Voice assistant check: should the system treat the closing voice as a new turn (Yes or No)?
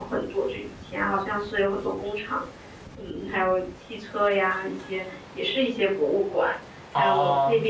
No